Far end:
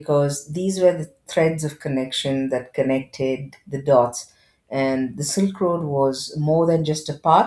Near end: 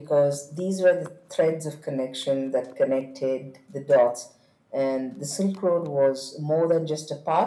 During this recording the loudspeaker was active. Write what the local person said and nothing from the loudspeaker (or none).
none